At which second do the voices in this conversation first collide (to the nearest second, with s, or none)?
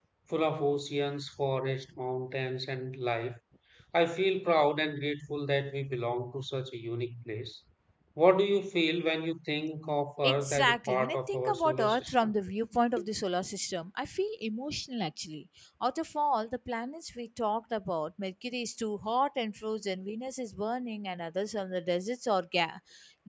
10 s